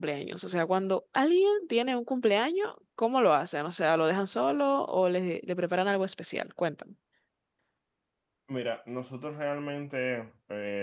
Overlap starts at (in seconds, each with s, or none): none